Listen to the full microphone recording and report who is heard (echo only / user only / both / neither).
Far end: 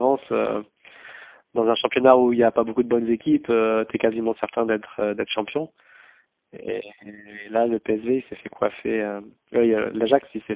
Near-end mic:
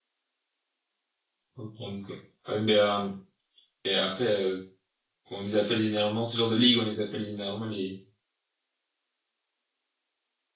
user only